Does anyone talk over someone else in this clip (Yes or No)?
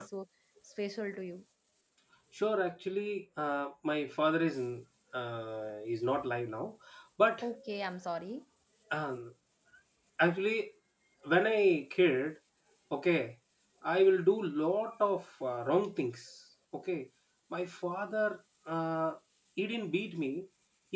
No